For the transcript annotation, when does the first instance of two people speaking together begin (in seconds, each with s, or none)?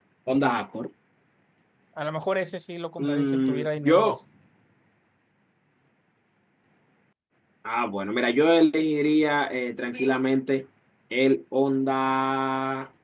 3.0 s